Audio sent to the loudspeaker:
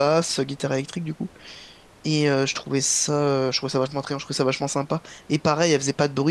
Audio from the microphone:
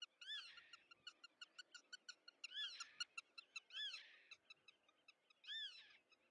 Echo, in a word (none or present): none